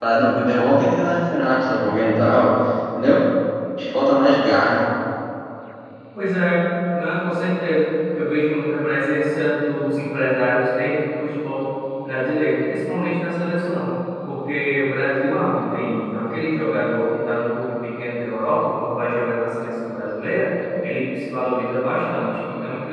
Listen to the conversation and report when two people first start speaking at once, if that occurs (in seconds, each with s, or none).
none